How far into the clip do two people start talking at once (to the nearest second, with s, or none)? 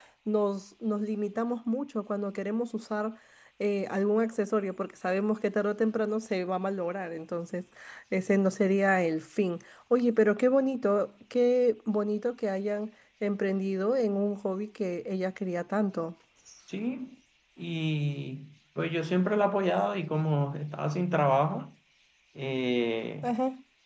none